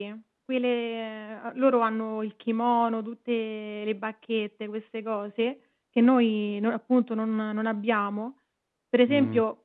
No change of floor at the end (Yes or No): Yes